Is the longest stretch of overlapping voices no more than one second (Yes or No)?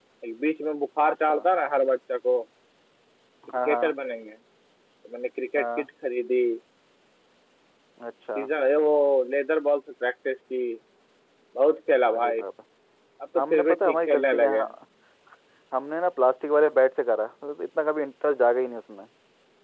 No